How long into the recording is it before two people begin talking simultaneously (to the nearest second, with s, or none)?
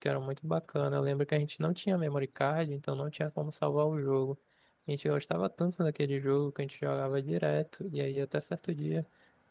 none